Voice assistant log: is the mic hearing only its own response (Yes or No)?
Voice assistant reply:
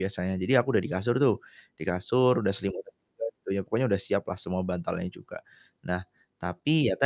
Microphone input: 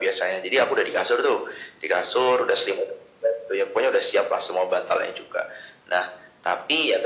Yes